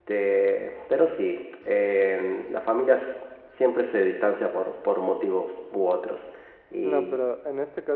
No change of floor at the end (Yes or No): No